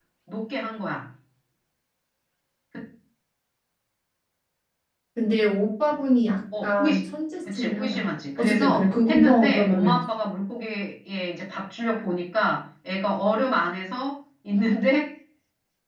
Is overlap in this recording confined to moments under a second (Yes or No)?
No